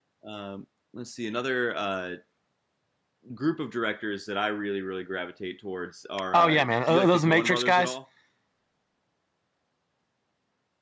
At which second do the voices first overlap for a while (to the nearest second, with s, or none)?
6 s